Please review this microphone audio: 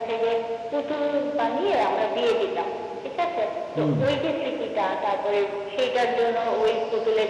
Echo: present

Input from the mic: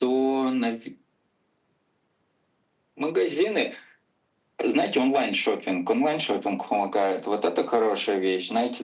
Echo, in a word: present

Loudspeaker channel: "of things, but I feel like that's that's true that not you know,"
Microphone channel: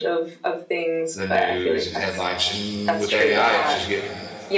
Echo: present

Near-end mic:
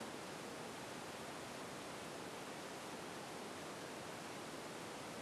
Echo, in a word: none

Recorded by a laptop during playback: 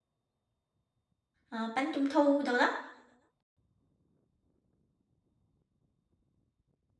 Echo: none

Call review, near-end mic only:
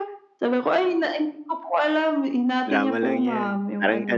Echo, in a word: present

